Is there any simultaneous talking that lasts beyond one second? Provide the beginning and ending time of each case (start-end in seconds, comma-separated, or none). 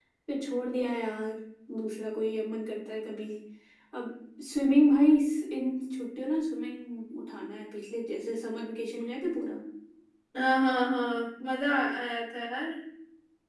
none